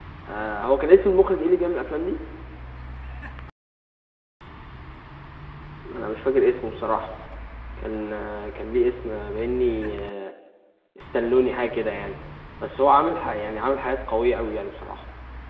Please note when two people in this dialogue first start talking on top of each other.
none

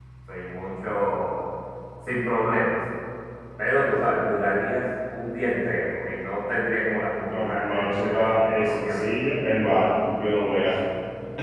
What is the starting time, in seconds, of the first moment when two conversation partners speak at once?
7.3 s

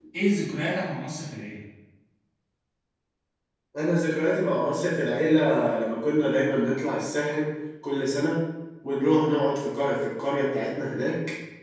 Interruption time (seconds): none

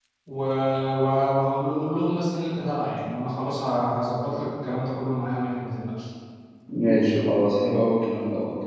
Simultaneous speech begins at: none

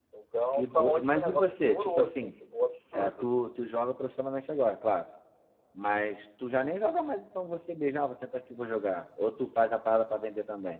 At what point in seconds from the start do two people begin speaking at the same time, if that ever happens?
0.5 s

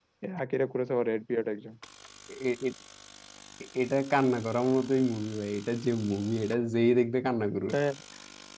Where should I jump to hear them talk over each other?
none

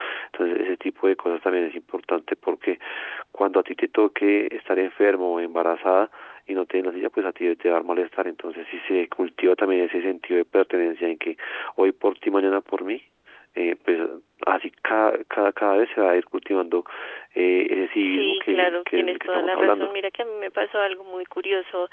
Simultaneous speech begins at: 18.0 s

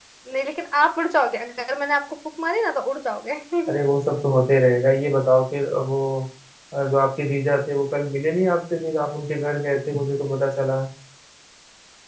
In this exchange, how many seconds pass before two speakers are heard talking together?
none

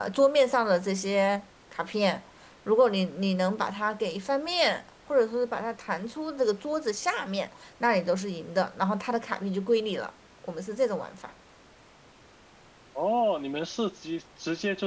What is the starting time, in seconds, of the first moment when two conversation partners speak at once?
none

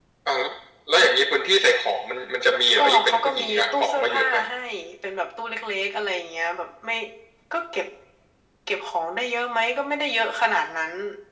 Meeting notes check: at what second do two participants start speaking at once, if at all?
2.8 s

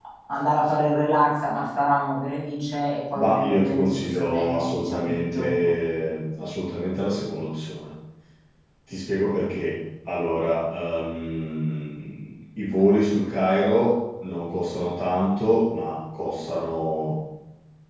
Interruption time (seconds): 3.1 s

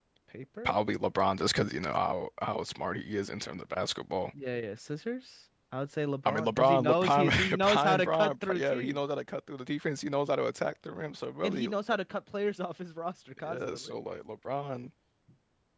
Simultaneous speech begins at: 6.2 s

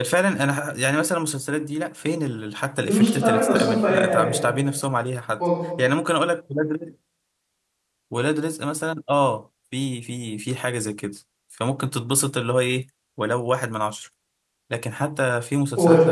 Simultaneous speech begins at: 2.8 s

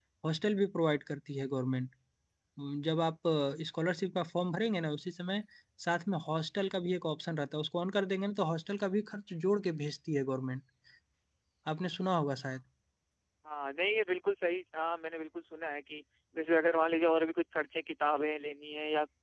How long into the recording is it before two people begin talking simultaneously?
none

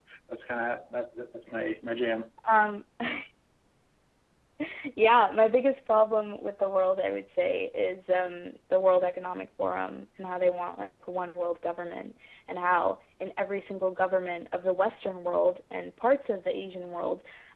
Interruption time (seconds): none

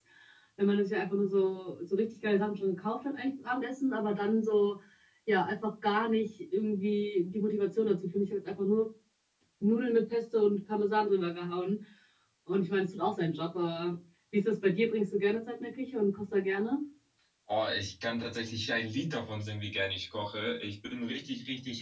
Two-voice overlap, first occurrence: none

